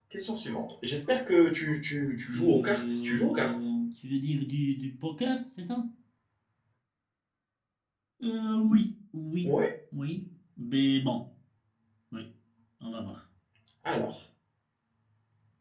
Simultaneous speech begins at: 2.3 s

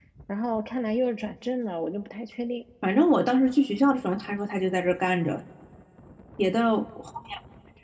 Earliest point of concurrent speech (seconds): none

